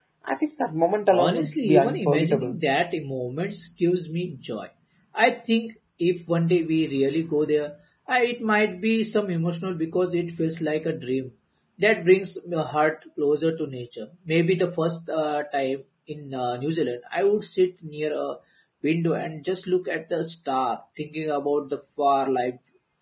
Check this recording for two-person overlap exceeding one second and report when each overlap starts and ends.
1.1-2.6

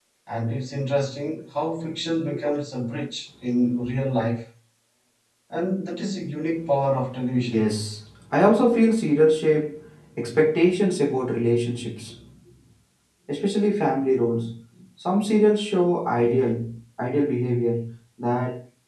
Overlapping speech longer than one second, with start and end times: none

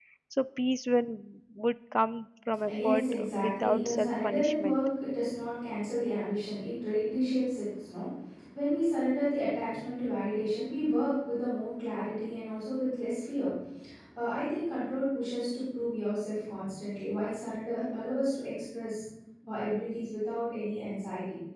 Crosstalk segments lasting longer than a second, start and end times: 2.7-4.8

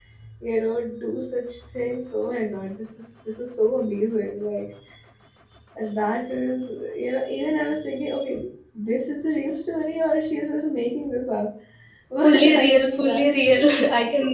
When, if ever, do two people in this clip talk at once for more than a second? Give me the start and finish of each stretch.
12.2-13.6

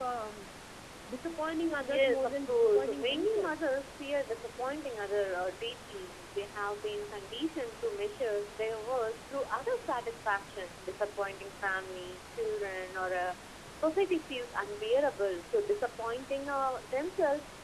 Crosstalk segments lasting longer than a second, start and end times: 1.8-3.7

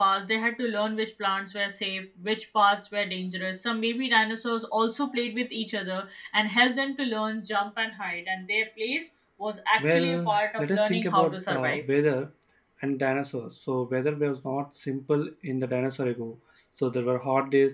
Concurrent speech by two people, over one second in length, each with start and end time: 9.8-11.8

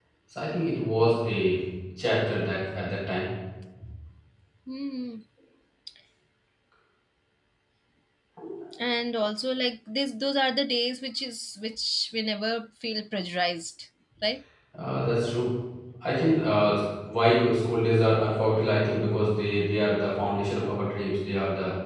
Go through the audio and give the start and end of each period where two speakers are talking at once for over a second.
none

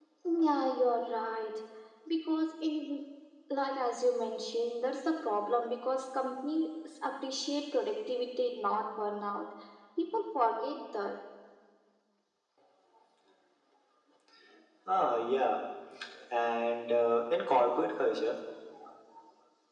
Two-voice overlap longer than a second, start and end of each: none

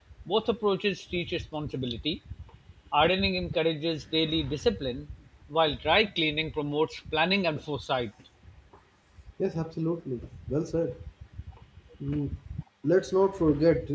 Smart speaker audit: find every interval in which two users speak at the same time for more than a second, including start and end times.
none

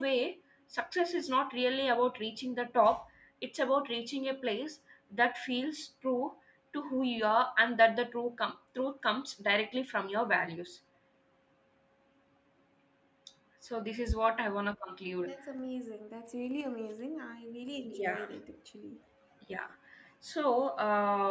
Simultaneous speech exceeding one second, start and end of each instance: none

